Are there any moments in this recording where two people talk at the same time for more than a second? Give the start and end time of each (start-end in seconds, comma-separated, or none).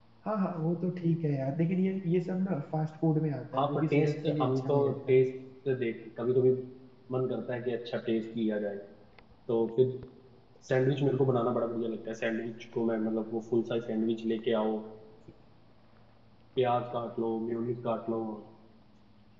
3.5-5.2